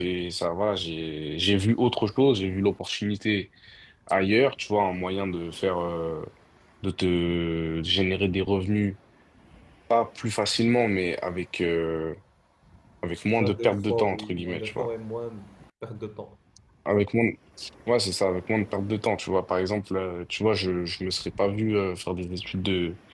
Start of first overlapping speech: 13.4 s

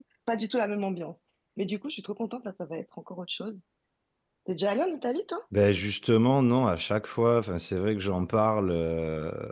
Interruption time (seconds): none

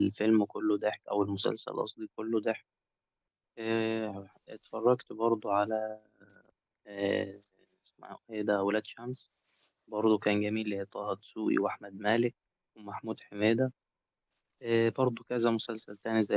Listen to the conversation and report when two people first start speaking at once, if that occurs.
none

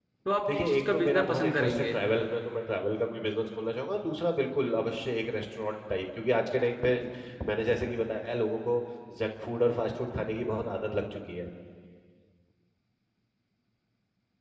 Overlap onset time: 0.6 s

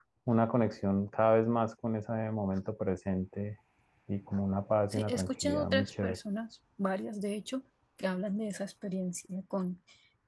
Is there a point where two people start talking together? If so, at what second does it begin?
4.9 s

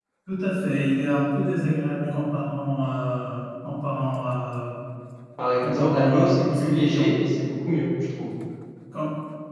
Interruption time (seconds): 5.6 s

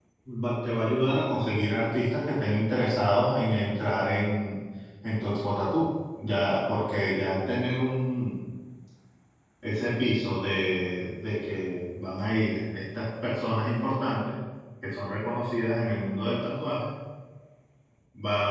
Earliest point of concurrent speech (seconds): none

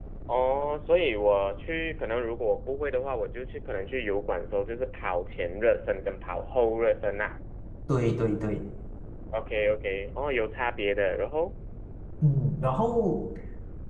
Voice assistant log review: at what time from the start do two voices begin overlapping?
none

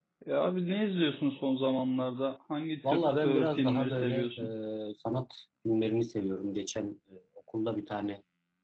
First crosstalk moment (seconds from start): 2.8 s

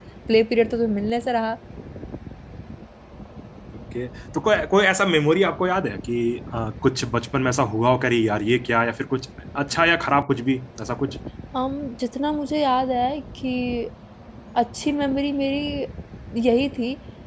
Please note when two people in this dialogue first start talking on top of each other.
none

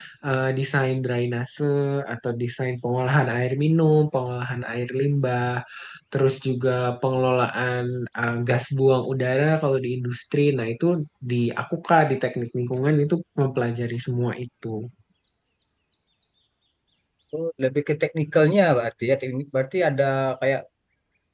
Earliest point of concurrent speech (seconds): none

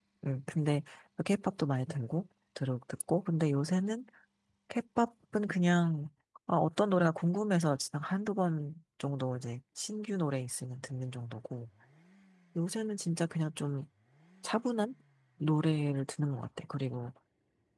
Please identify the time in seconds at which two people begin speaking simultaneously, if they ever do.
none

